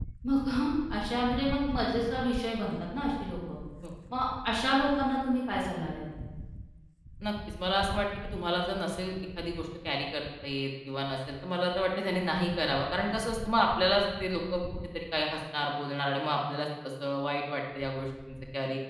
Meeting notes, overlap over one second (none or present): none